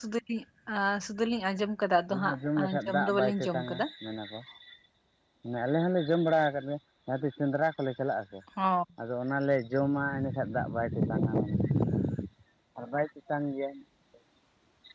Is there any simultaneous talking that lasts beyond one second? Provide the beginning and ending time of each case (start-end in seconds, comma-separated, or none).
2.1-3.9